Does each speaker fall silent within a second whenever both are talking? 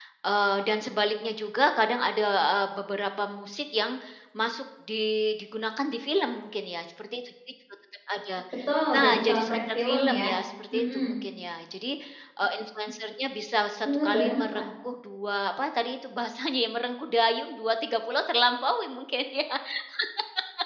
No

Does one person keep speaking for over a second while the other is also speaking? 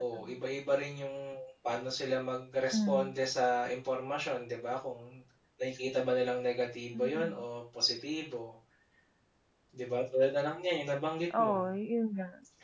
No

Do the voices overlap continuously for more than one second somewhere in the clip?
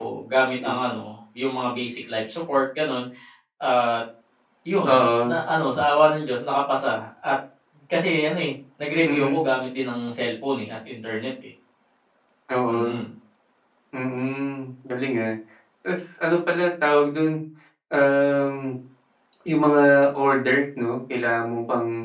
No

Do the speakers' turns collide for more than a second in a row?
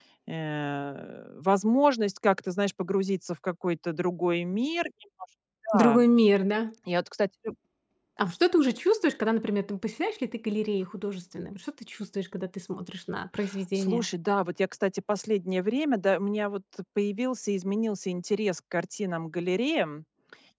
No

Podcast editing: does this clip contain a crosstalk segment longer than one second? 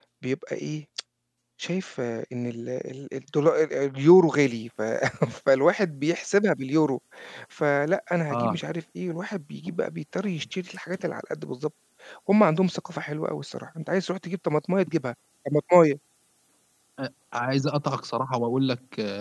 No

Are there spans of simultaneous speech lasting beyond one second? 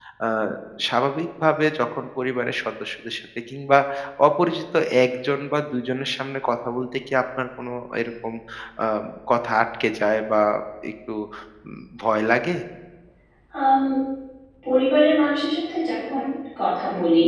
No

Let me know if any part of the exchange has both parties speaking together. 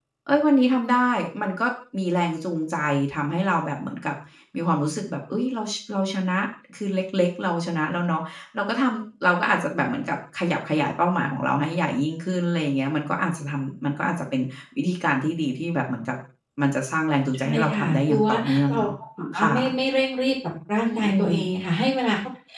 Yes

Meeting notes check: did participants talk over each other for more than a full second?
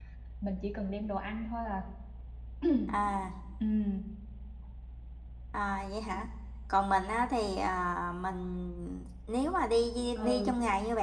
No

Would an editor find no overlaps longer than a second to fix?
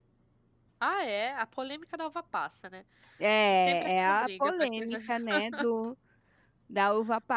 No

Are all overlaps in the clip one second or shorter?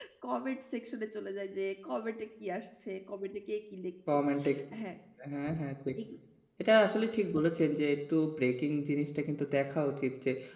Yes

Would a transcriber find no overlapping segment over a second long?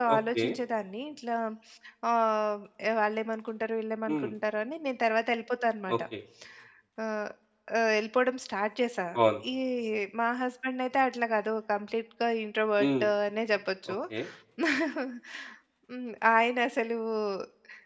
Yes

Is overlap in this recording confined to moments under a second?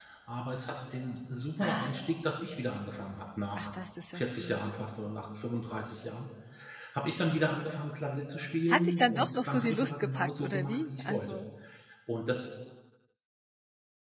No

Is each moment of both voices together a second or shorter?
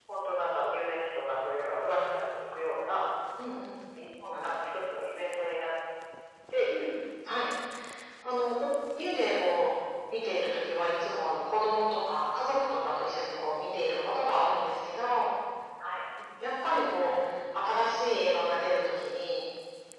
Yes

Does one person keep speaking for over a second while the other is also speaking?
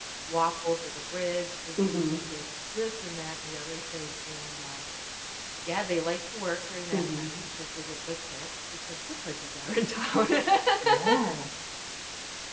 No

